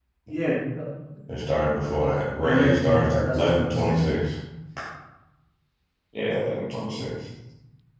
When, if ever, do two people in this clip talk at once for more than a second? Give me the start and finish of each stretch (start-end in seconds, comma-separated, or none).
2.4-4.1